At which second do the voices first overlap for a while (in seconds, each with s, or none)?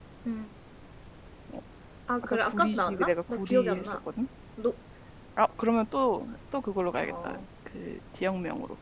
2.2 s